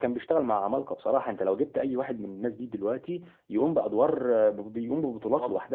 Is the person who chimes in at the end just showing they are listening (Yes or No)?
No